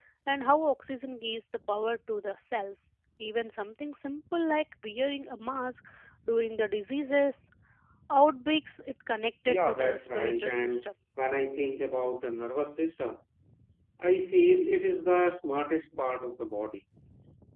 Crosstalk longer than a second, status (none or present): present